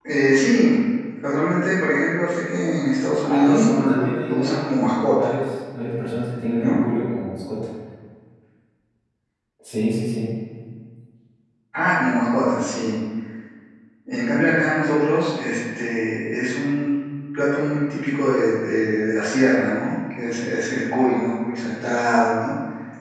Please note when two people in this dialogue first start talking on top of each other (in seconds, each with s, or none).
3.2 s